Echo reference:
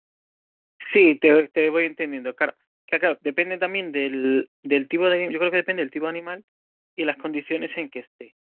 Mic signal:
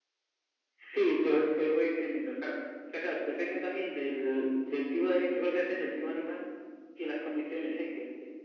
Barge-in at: none

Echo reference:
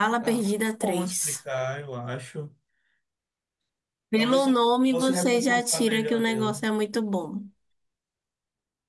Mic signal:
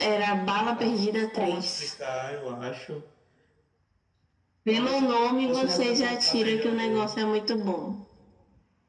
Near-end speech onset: none

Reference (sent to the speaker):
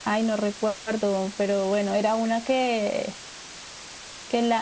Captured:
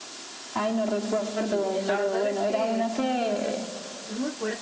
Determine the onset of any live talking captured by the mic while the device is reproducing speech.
1.0 s

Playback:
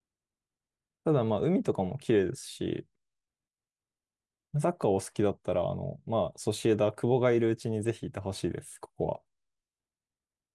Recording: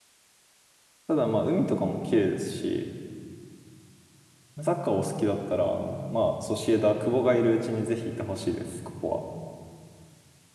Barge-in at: none

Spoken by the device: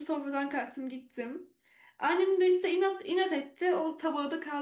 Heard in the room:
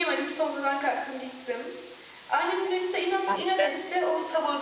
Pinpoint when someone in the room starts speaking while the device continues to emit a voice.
3.3 s

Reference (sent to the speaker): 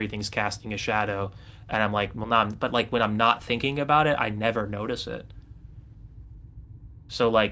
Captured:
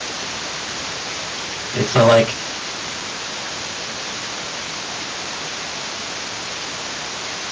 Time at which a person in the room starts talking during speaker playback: 1.7 s

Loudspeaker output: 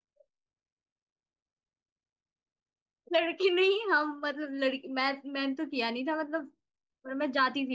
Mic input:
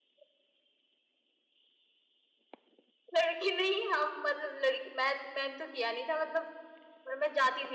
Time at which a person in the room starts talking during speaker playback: none

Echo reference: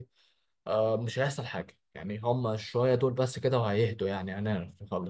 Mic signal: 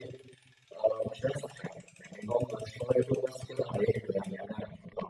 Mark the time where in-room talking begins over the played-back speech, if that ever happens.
none

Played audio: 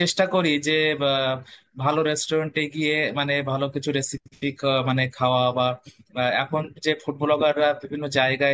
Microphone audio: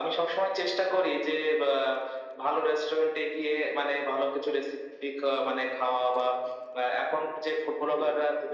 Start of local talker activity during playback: none

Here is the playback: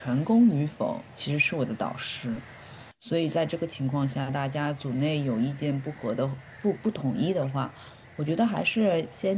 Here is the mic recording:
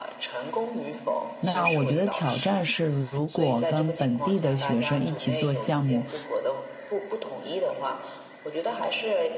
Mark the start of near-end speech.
1.4 s

